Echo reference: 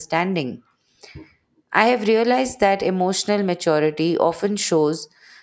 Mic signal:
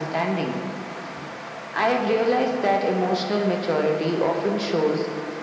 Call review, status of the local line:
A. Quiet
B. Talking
A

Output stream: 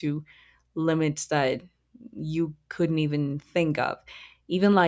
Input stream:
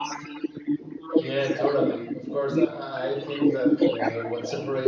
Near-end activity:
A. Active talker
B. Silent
A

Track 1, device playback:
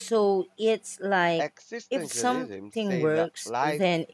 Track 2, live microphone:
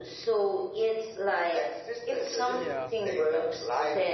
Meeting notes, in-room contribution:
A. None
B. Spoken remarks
B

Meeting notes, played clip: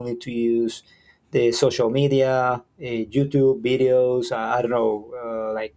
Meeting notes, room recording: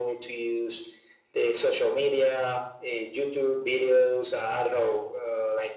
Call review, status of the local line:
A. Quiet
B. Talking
A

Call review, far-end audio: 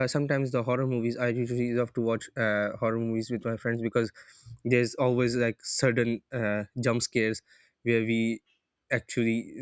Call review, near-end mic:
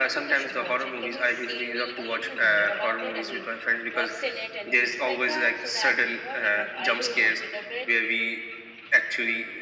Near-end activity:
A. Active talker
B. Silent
A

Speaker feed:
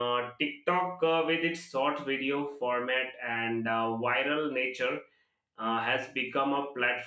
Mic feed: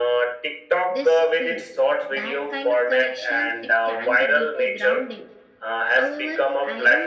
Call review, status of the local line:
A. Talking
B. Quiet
A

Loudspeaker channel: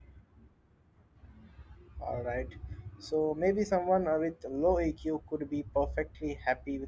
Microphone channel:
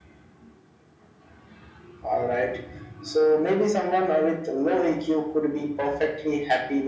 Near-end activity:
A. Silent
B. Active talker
A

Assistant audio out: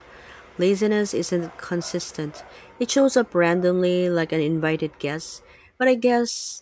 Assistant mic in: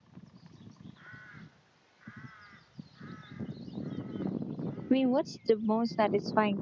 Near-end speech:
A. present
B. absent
A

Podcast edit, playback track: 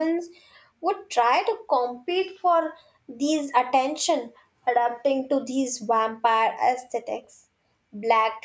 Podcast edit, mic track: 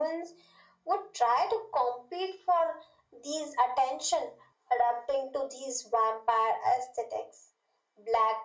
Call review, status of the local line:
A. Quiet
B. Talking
A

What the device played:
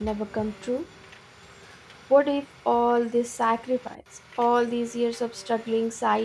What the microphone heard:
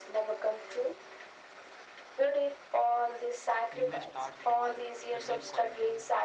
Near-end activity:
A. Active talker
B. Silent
A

